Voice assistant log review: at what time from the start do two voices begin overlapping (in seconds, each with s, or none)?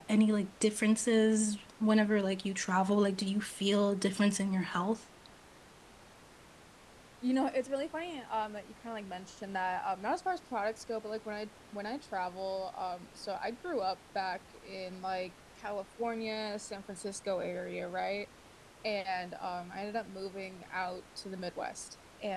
none